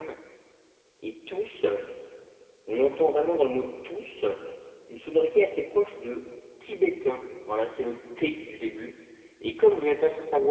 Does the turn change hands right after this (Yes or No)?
No